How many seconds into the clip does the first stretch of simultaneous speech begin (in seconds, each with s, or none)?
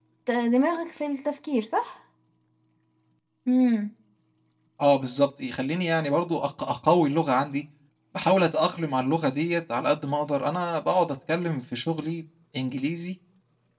none